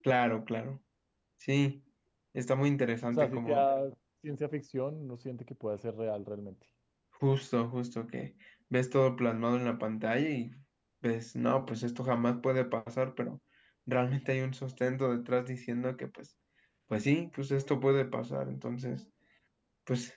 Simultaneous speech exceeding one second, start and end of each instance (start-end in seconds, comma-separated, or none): none